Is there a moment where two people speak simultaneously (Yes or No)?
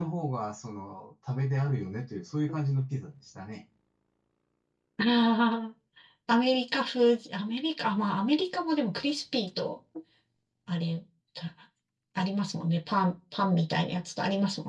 No